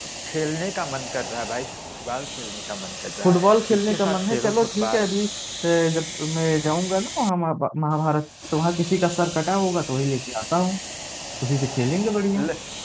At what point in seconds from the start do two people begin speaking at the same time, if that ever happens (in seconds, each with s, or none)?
3.2 s